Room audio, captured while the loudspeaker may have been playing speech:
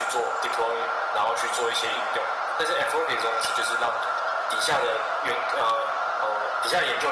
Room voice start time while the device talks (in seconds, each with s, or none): none